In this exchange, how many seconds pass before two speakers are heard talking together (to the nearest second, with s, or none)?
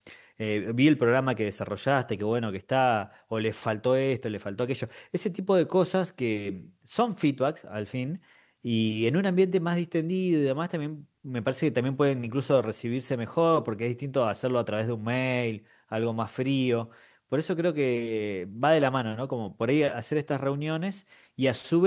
none